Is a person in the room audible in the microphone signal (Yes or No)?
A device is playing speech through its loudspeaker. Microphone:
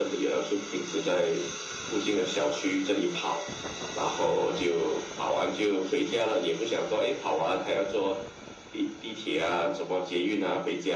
No